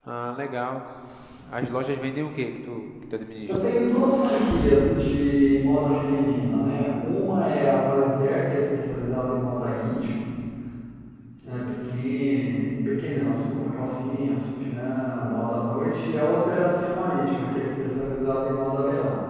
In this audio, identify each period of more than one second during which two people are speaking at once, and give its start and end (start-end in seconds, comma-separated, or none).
none